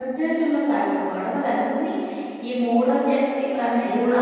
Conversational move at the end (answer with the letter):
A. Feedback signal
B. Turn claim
B